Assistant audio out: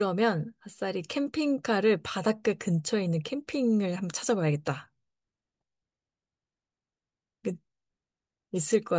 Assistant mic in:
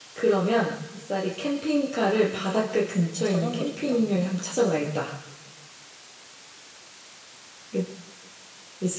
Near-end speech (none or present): present